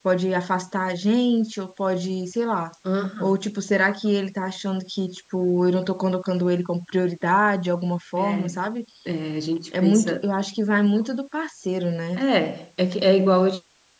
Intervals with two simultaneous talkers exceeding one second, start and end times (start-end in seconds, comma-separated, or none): none